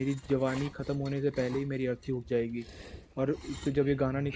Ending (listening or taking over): listening